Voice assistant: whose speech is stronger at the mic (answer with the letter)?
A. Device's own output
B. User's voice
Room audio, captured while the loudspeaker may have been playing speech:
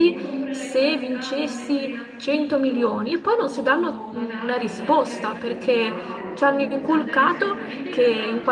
B